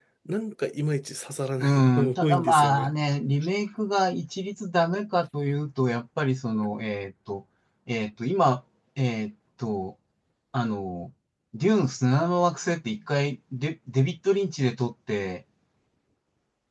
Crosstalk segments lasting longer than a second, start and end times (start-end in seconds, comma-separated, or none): 1.6-2.9